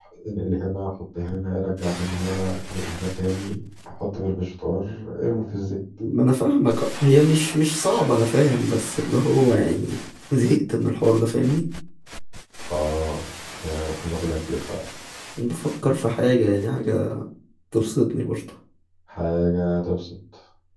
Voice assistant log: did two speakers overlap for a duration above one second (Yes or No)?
No